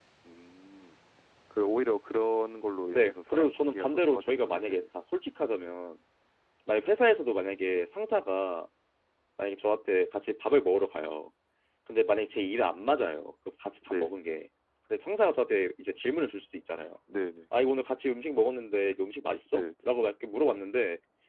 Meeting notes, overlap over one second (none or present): present